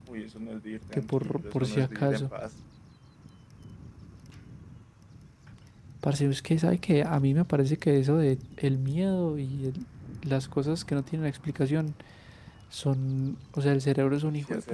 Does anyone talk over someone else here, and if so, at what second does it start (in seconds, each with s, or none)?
0.9 s